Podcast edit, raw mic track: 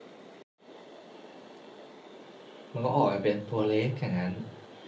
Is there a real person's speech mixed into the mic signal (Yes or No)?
Yes